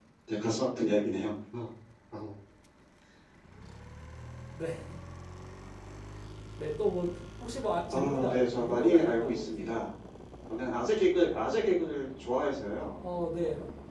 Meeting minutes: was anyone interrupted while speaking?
Yes, from 7.9 s

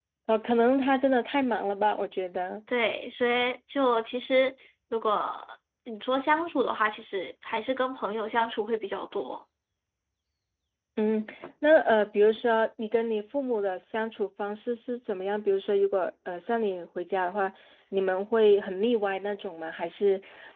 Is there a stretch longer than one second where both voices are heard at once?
No

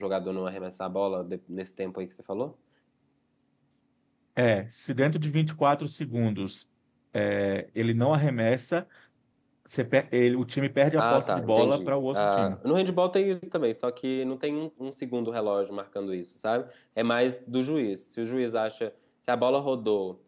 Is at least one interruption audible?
Yes, from 11.0 s

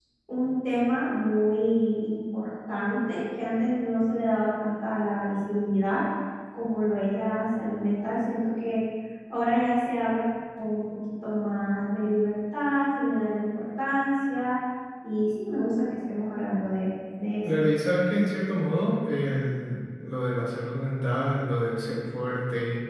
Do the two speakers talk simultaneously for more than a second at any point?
No

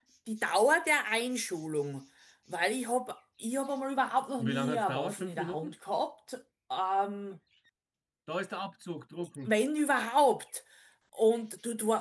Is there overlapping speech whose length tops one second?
Yes, from 4.4 s

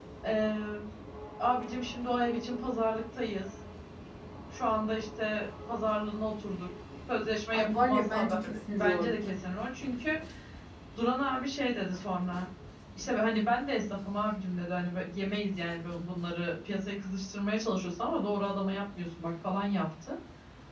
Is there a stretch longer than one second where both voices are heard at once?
Yes, from 7.5 s

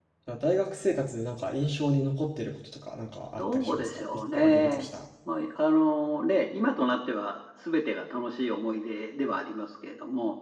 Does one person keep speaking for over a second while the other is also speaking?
Yes, from 3.4 s

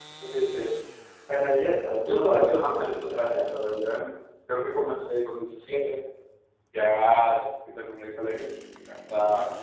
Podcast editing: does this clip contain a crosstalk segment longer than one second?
Yes, from 1.8 s

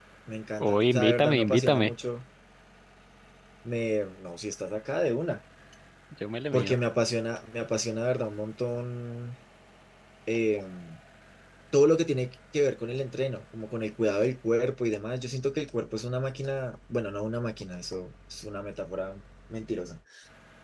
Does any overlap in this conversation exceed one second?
Yes, from 0.6 s

